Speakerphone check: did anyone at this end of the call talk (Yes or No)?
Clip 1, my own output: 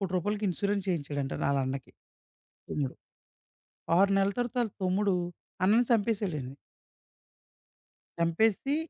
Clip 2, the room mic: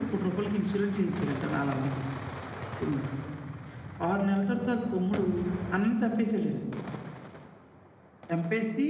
No